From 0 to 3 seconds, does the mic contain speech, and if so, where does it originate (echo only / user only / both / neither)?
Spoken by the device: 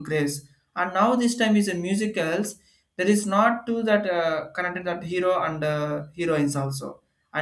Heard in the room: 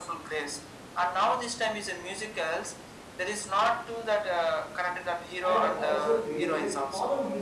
echo only